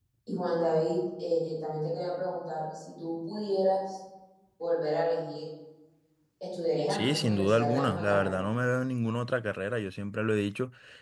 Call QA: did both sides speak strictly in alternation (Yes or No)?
No